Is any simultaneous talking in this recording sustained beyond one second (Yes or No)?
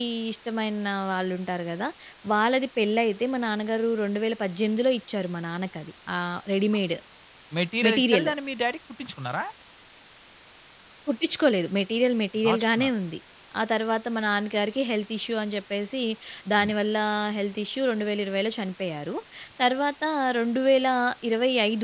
No